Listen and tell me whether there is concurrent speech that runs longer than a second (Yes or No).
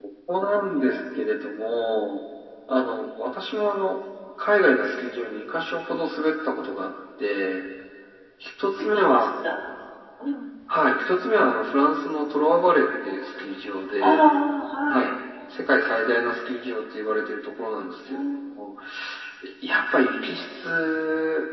No